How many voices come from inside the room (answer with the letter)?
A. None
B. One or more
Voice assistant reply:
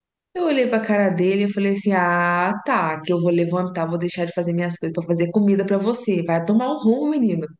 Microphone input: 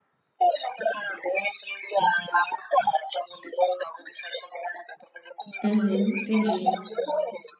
B